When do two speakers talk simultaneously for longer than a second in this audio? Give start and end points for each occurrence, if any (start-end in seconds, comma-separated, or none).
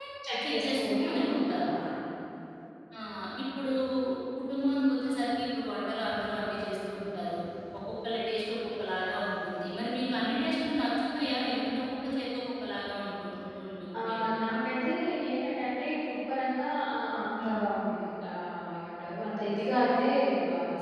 0.5-1.7